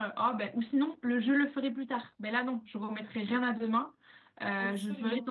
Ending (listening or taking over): listening